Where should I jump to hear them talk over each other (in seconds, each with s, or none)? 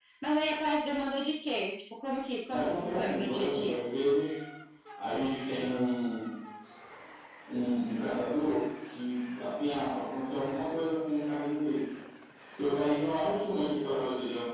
2.5 s